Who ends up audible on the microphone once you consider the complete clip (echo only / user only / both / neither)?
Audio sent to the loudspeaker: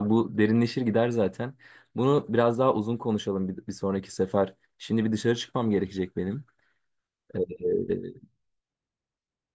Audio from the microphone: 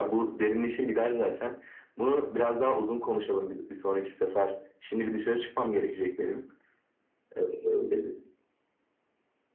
echo only